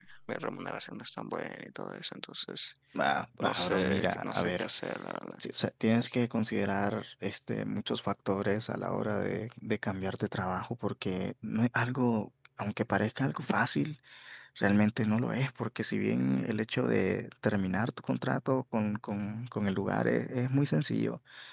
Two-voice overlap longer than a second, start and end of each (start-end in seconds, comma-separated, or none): 3.4-4.7